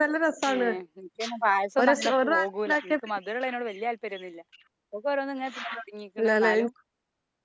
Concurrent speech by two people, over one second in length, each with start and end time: 1.8-3.1

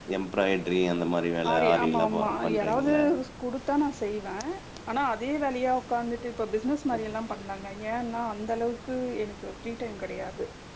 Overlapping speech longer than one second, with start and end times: 1.5-2.9

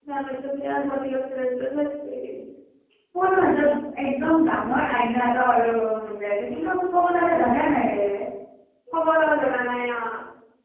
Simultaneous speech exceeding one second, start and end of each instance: none

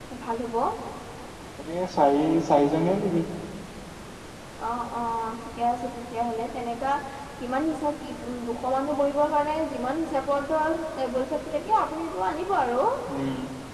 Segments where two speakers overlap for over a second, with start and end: none

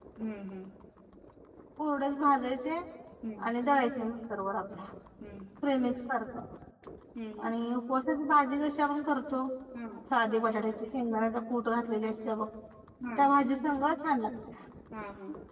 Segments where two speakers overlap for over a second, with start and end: none

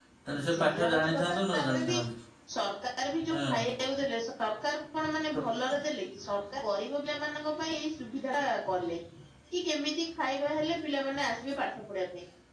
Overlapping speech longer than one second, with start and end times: 0.7-1.9

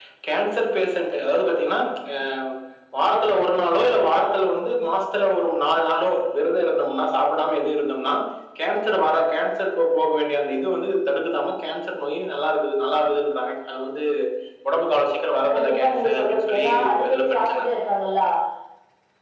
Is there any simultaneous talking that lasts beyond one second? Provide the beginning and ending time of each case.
15.5-17.7

